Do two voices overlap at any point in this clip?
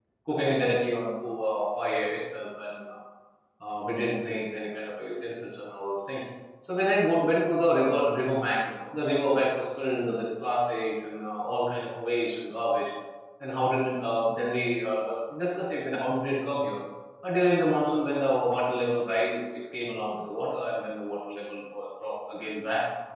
No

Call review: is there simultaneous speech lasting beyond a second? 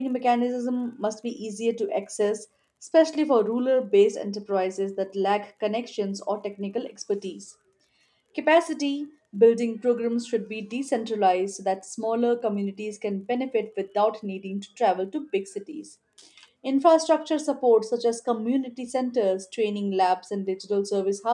No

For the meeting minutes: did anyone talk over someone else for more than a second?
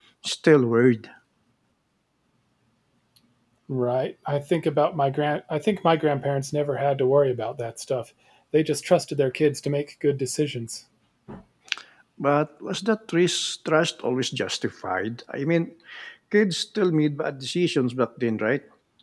No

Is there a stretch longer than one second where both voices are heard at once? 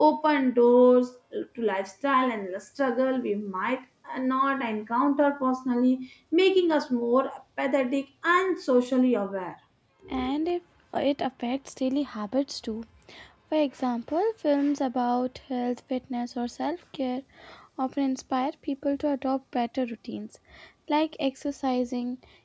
No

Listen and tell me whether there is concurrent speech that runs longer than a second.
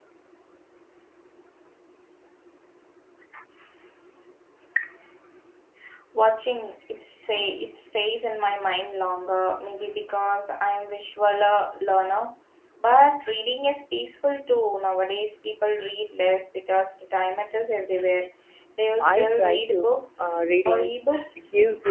Yes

